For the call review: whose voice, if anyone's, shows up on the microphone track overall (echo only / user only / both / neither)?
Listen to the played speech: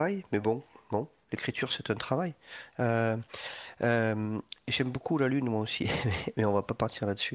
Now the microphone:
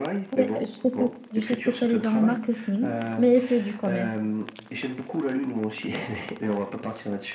both